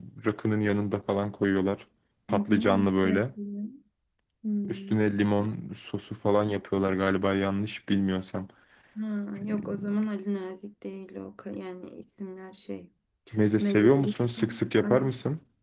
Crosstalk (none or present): present